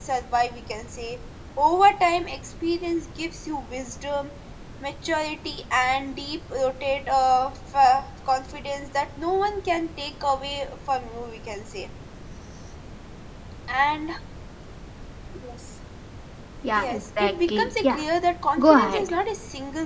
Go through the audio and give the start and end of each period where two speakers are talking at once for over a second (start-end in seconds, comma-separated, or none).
16.8-18.0